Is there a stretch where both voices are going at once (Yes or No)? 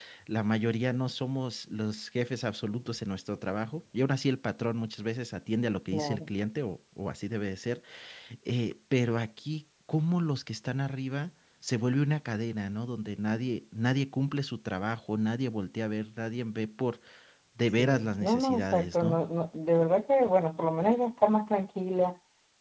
Yes